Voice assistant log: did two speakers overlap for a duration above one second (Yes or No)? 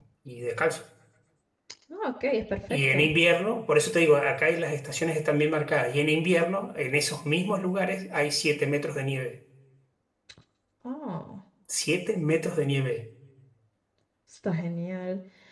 No